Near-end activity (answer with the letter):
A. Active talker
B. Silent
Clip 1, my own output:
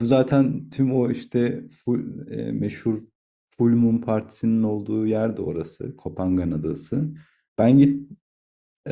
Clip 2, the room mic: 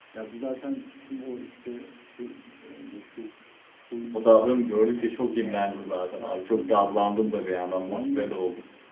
A